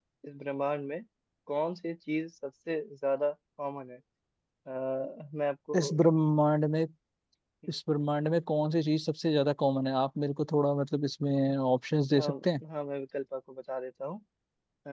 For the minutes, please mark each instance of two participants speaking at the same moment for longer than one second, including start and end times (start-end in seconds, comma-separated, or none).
none